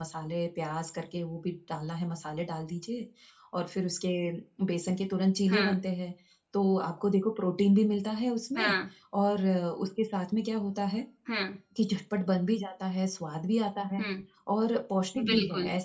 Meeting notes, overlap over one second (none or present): none